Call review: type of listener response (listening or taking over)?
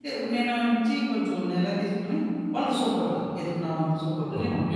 taking over